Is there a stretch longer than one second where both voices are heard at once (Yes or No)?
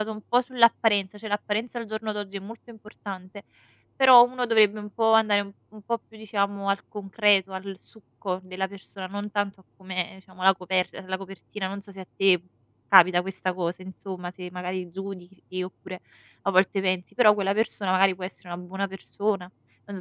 No